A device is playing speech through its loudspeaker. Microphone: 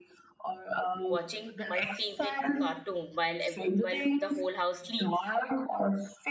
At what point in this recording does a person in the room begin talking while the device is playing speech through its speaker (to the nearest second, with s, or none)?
1 s